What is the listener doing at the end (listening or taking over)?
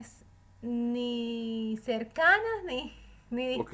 taking over